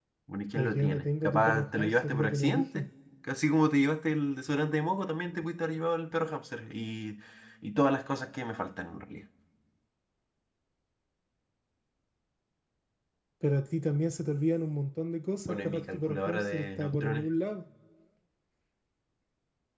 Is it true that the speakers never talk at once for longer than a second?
No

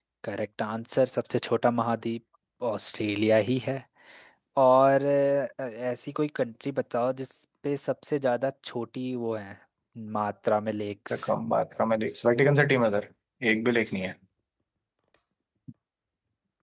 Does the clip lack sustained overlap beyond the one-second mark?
Yes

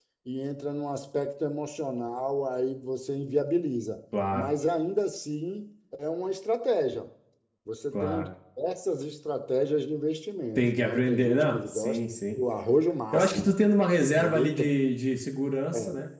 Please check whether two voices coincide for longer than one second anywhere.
Yes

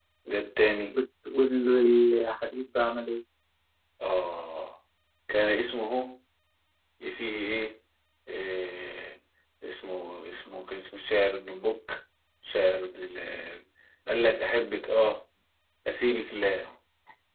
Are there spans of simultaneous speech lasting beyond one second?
No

